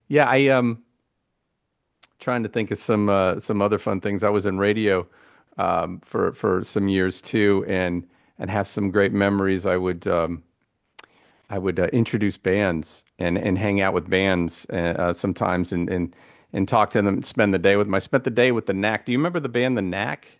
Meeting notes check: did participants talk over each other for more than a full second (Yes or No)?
No